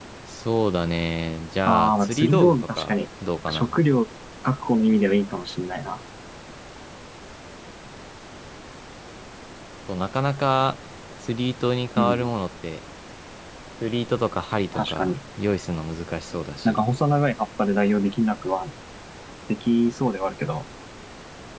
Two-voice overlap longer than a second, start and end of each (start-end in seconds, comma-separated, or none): 1.6-3.0